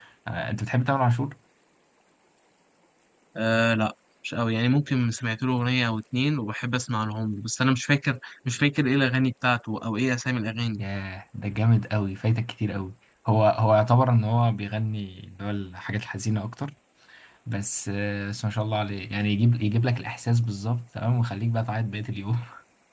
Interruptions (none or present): none